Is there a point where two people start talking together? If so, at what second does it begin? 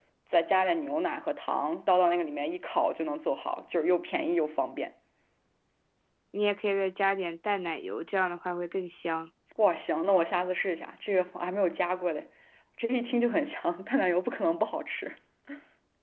none

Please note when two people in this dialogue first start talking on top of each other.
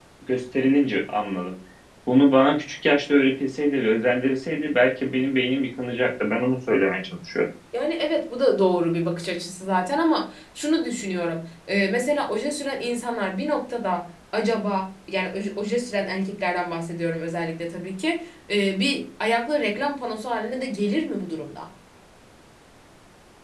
none

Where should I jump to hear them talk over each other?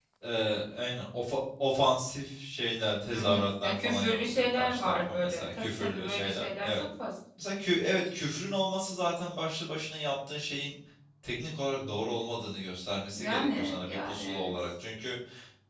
3.1 s

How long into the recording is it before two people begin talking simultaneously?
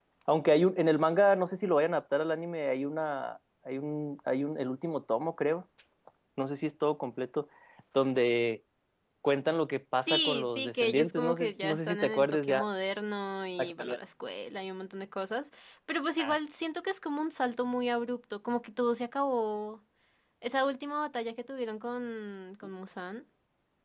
10.1 s

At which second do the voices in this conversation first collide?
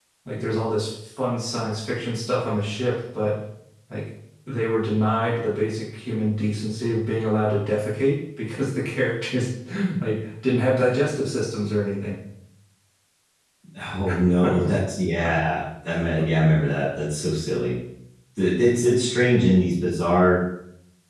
none

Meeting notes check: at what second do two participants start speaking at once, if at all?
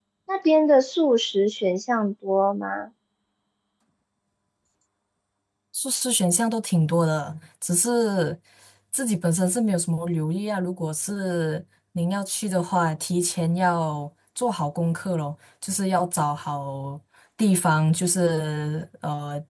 none

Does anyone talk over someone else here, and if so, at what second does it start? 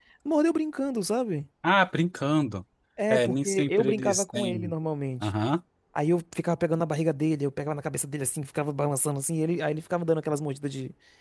3.1 s

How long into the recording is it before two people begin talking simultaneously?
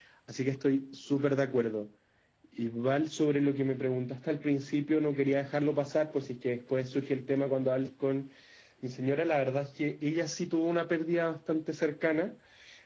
none

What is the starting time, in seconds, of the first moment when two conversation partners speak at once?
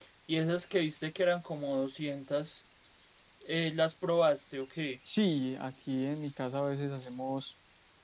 none

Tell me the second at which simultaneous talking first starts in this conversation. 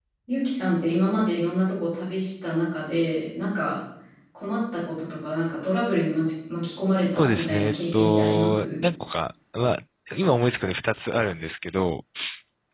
7.2 s

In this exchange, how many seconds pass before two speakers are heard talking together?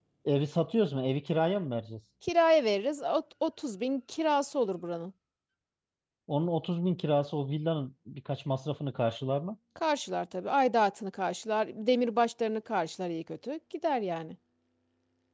none

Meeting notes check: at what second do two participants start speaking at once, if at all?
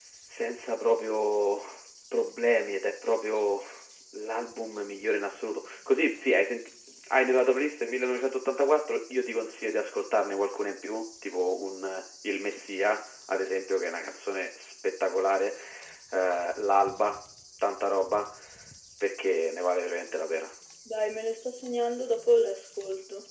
none

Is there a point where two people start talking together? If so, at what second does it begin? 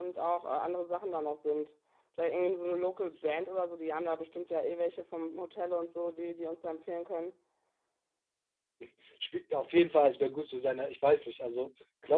none

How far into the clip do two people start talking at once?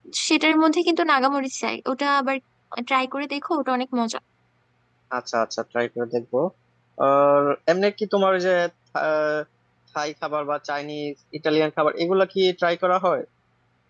none

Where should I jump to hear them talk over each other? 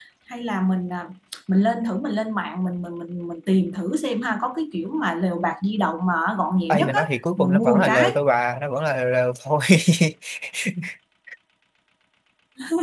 6.7 s

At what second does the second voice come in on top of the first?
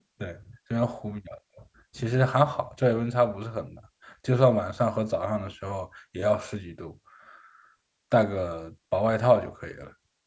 none

